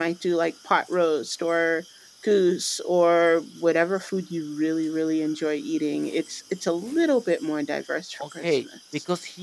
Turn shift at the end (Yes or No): Yes